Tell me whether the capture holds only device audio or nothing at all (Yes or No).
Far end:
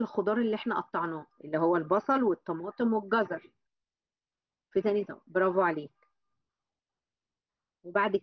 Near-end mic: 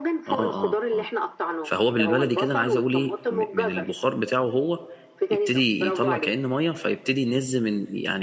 No